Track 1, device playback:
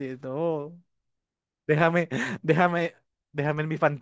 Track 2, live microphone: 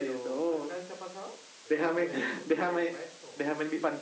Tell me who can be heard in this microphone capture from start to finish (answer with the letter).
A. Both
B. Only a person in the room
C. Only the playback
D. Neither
A